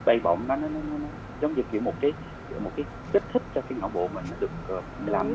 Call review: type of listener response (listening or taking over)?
taking over